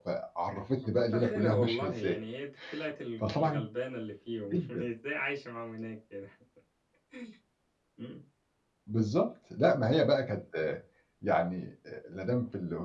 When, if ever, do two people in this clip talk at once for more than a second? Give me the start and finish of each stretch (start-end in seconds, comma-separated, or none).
0.8-2.2